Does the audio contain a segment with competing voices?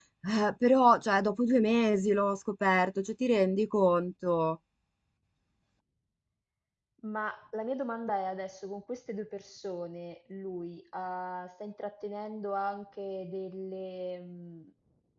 No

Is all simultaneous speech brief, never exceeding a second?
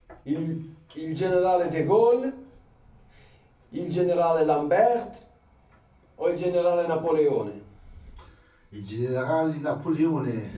Yes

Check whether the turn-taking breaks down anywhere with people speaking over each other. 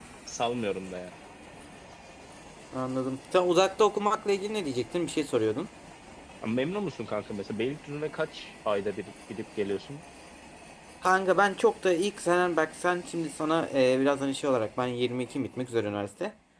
No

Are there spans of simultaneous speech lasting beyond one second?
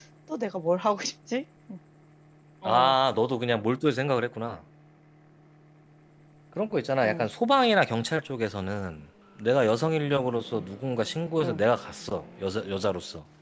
No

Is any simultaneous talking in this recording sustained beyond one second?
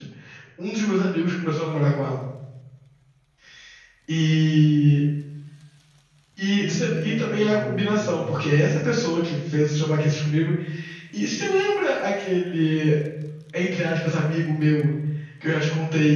Yes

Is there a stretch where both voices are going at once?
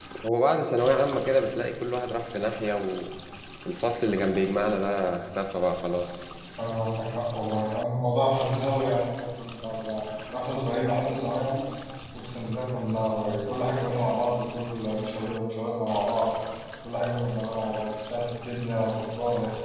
No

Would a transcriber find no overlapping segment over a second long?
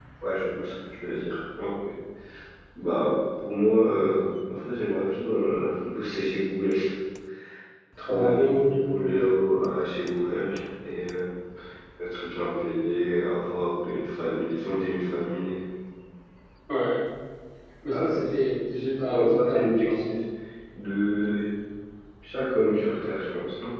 No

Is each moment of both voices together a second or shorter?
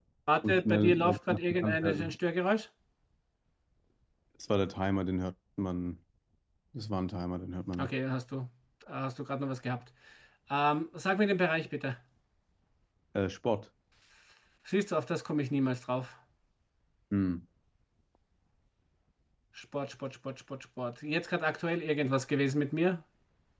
No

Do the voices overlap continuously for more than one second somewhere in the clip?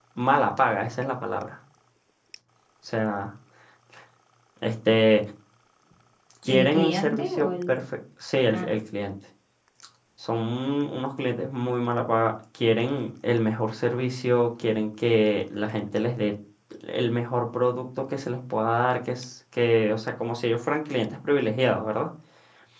Yes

